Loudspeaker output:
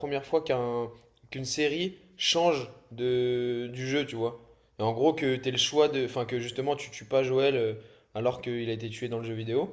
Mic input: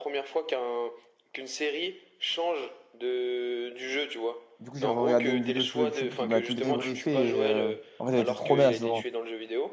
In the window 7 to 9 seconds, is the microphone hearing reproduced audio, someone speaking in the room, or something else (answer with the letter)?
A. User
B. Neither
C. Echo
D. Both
D